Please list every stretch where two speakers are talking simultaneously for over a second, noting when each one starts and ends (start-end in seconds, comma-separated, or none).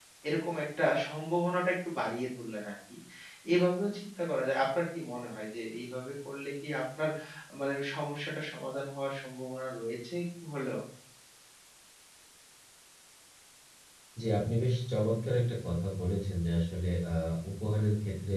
none